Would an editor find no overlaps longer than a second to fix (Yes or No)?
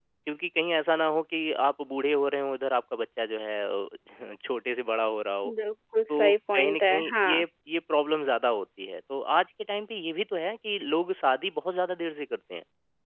No